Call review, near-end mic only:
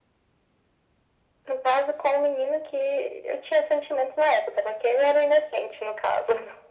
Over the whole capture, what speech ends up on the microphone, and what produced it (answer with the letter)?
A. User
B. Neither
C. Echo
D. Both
C